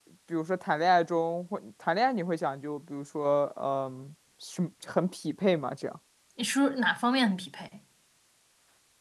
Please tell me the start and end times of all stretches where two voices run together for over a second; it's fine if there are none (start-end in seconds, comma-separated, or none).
none